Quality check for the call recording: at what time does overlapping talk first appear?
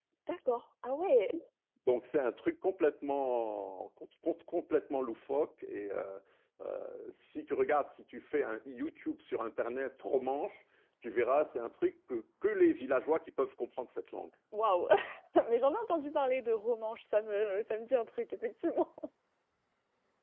none

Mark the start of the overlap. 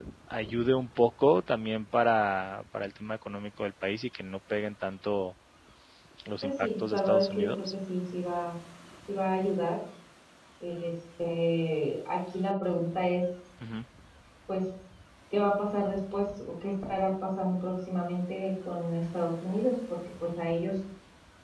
6 s

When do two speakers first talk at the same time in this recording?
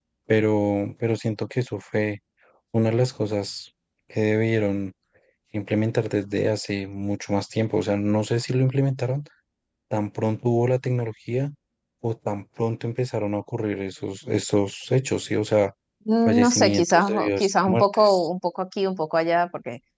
16 s

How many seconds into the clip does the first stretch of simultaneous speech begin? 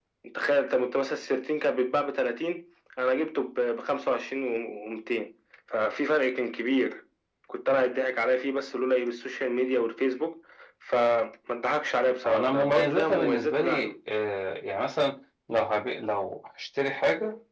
12 s

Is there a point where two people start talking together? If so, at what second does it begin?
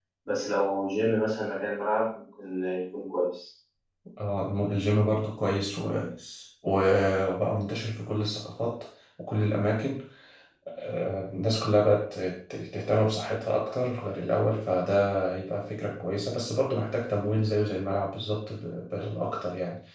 none

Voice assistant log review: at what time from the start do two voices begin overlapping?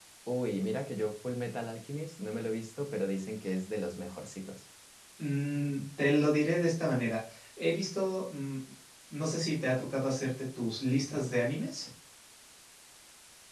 none

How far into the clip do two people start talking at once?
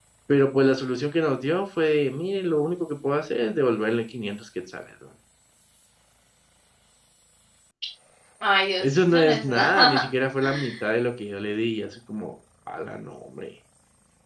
9 s

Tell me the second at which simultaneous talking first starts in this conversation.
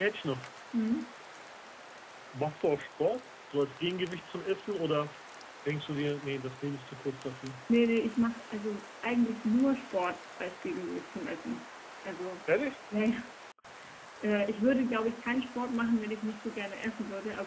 none

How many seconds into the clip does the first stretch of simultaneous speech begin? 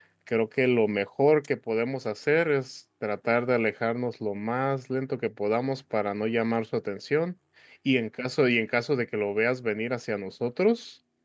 none

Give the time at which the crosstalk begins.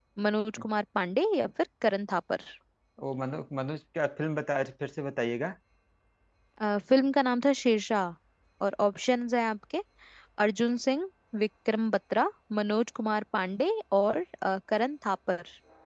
none

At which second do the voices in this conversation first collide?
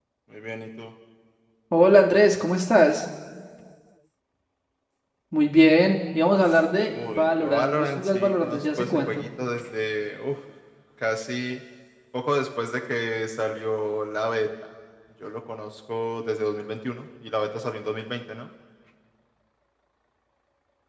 7 s

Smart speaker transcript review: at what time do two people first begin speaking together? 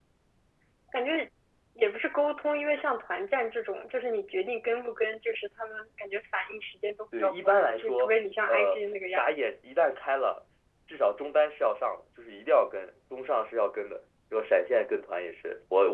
7 s

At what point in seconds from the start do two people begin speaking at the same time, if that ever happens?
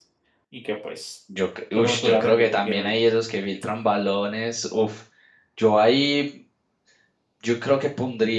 2 s

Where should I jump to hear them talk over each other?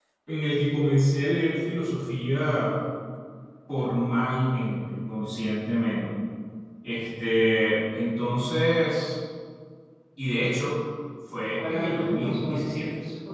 11 s

